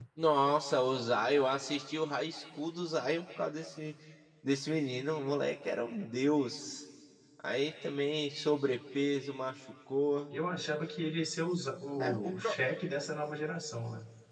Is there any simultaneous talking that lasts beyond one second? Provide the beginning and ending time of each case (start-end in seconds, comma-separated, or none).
none